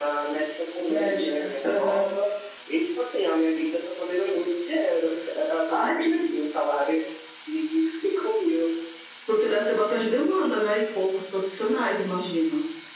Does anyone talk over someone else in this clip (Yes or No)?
Yes